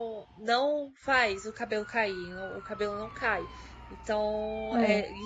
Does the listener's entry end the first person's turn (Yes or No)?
No